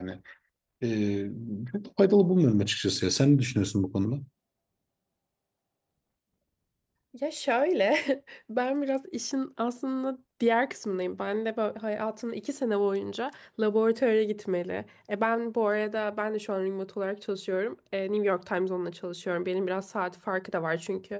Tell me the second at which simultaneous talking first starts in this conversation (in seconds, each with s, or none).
none